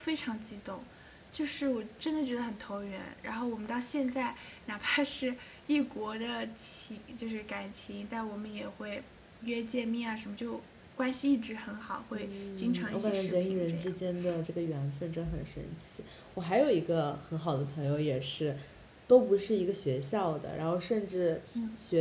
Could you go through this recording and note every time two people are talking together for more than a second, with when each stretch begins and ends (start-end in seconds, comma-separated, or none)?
12.1-13.9